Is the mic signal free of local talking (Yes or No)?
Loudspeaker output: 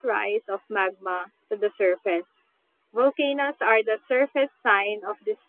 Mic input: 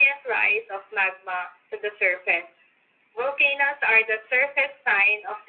Yes